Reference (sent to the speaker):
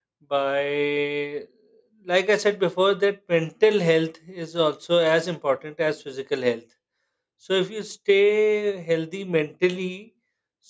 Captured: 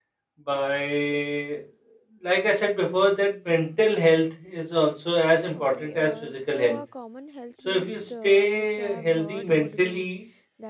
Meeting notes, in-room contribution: present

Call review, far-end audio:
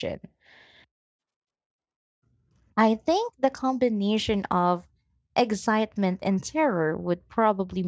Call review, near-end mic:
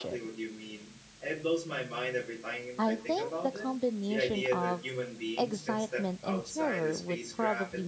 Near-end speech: present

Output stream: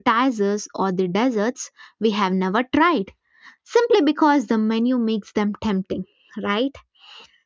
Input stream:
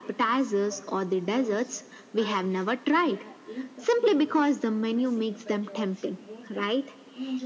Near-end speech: present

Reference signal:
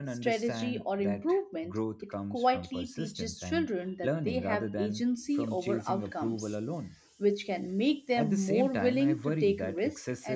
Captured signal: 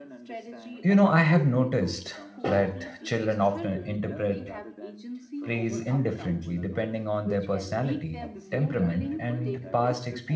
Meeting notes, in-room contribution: present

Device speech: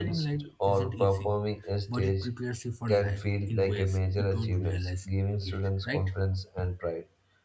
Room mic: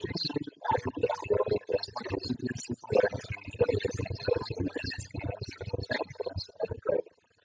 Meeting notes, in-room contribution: none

